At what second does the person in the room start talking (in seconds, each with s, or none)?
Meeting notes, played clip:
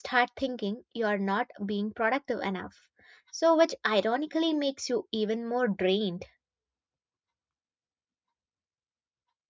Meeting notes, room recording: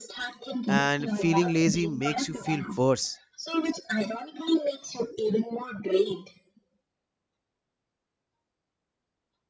0.7 s